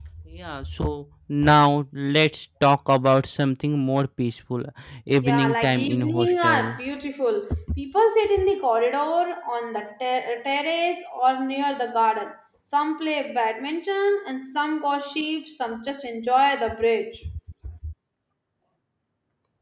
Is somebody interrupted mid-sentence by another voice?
Yes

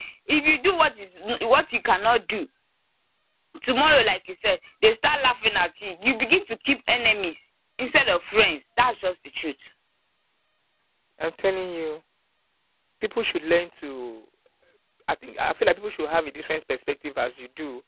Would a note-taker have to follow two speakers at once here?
No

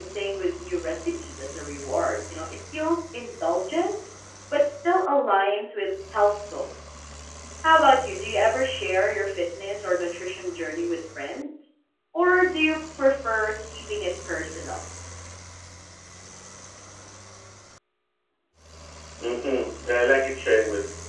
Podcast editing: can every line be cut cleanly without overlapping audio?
Yes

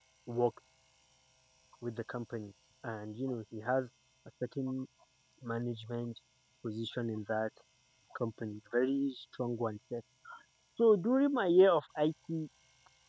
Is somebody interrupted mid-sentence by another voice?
No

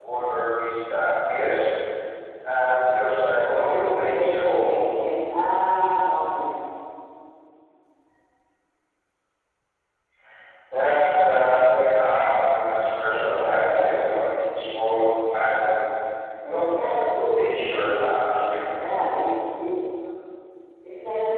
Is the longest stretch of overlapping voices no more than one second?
No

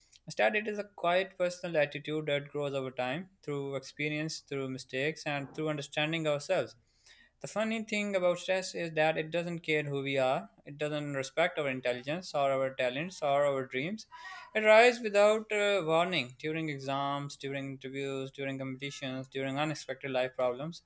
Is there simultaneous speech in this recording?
No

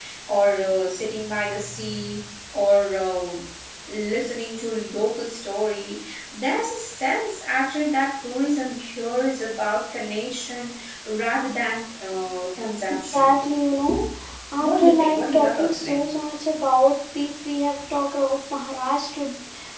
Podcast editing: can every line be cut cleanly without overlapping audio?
No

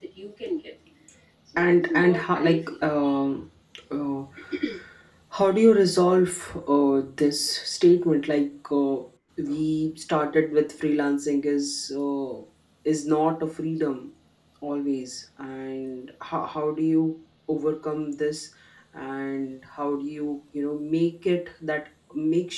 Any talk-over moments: Yes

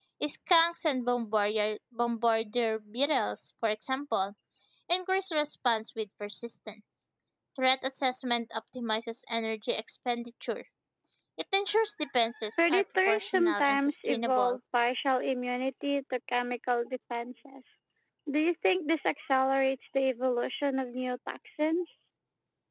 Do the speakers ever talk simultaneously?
Yes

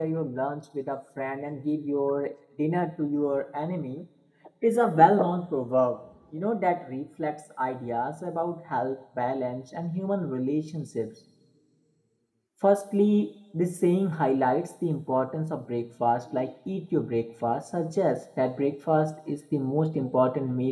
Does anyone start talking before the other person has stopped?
No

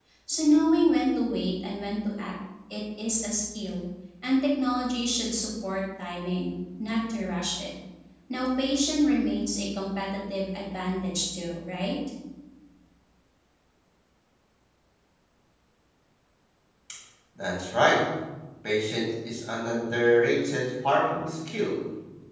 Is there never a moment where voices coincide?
Yes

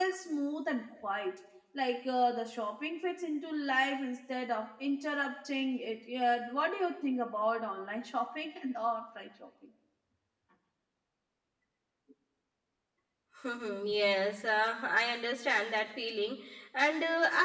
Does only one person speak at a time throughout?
Yes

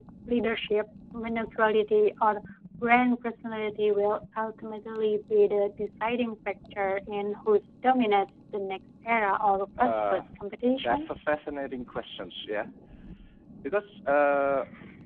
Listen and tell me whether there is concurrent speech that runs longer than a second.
No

